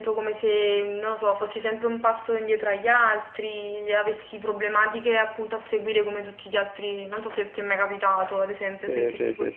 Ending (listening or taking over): taking over